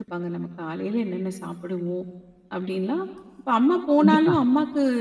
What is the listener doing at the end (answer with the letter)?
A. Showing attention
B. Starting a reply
A